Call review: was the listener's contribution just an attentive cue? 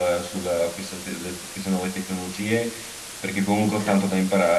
Yes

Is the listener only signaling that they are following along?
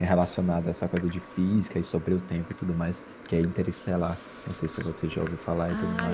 No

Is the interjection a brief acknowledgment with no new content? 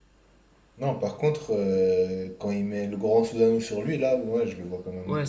No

